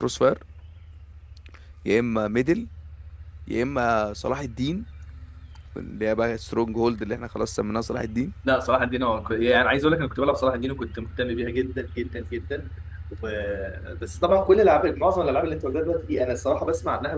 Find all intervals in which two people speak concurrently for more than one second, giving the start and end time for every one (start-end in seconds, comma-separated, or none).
none